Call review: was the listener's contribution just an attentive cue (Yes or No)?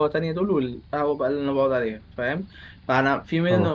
Yes